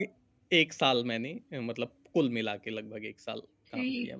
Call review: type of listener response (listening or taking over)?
taking over